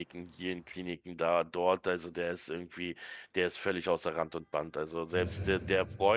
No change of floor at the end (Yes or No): Yes